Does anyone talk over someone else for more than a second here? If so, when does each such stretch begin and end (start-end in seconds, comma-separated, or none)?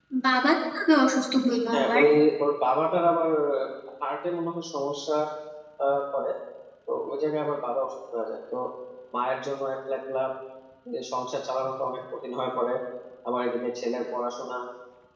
none